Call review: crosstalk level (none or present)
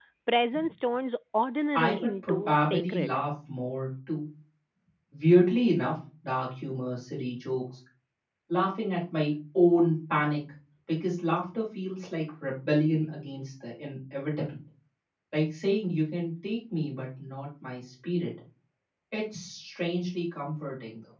present